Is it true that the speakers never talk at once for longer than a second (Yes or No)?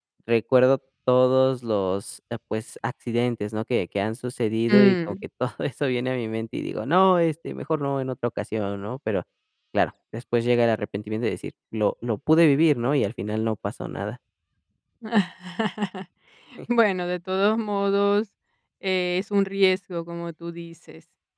Yes